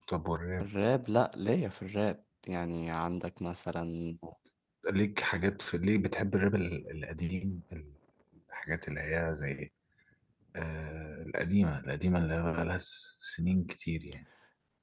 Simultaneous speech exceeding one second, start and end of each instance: none

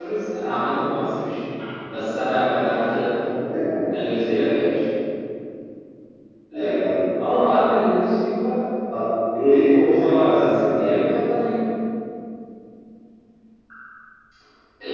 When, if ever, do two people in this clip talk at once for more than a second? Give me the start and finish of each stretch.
9.3-10.9

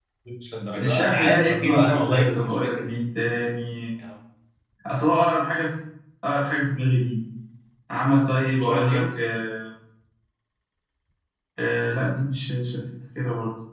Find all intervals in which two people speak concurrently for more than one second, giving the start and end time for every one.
0.7-2.9

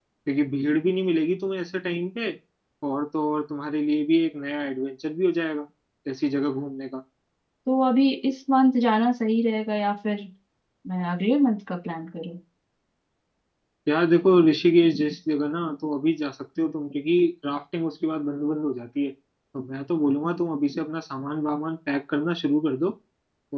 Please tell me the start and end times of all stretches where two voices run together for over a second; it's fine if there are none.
none

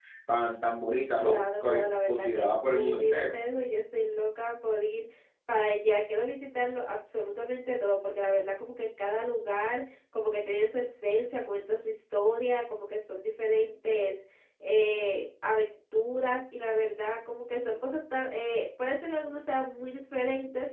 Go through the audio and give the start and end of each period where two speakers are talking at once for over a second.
1.2-3.3

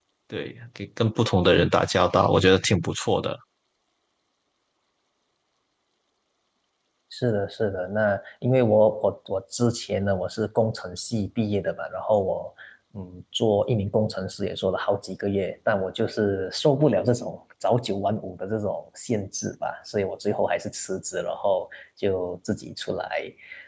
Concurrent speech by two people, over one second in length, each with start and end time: none

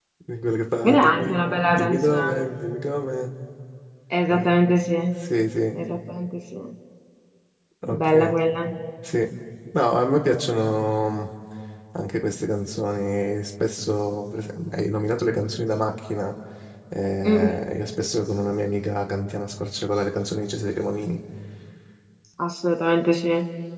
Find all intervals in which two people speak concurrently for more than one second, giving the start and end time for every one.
0.8-2.5

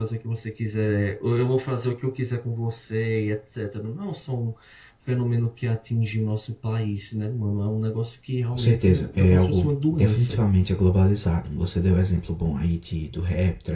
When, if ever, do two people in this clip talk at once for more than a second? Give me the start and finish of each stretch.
8.5-10.4

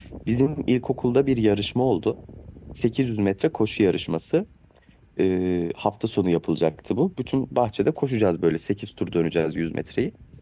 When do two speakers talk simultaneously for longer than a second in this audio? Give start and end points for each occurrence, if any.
none

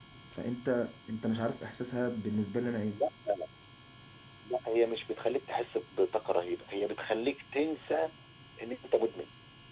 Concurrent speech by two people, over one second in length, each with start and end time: none

